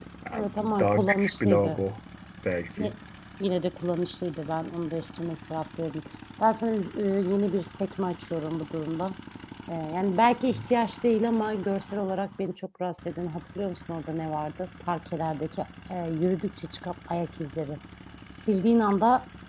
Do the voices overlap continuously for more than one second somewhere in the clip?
Yes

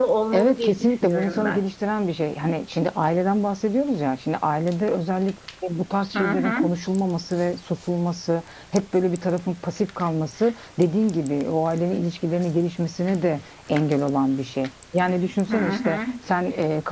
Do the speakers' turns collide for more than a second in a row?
Yes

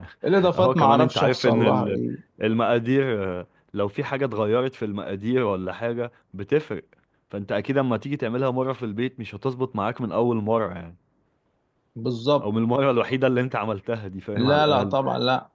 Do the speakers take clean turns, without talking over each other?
No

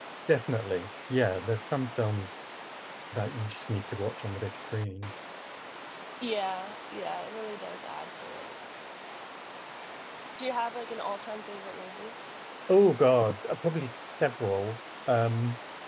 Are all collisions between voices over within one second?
Yes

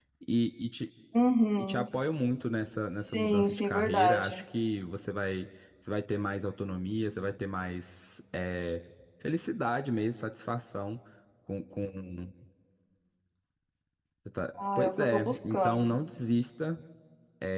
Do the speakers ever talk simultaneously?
Yes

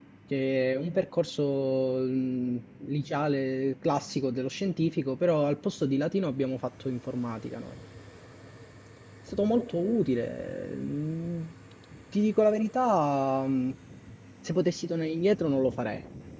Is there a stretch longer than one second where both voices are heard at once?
No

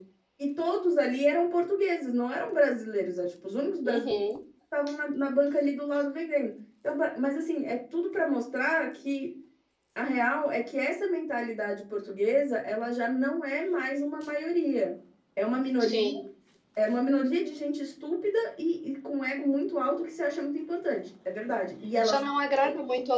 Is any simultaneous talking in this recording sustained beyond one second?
No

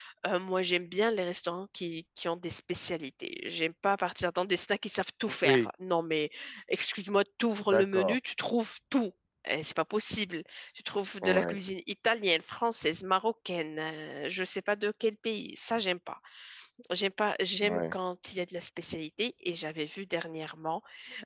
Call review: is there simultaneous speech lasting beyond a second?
No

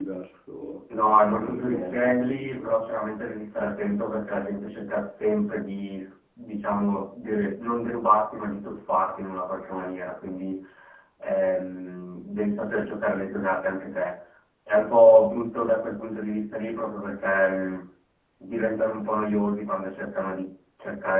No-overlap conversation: No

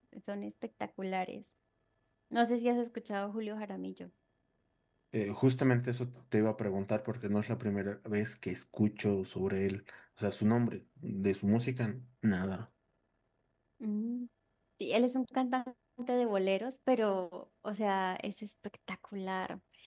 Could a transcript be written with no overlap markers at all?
Yes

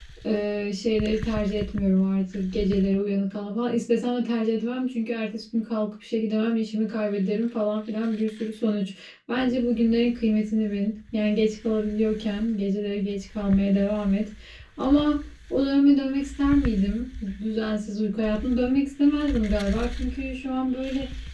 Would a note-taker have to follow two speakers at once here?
No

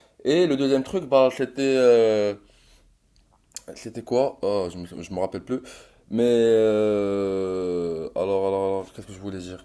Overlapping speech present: No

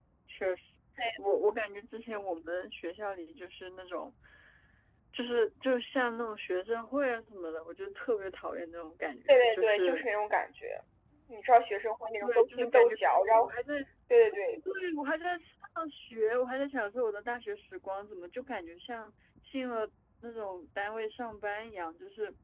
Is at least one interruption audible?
Yes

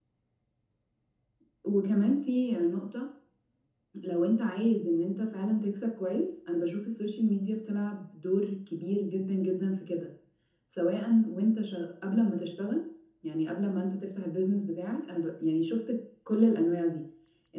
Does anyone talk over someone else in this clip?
No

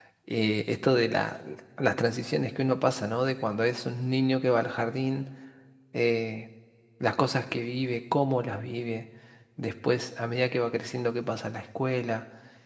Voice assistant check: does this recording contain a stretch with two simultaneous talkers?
No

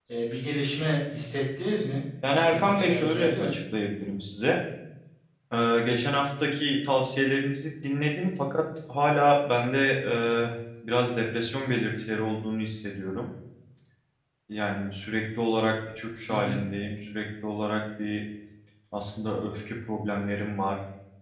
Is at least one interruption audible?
Yes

